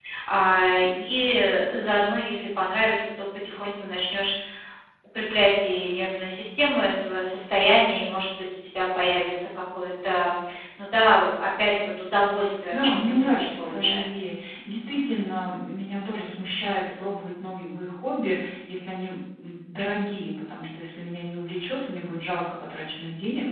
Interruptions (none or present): present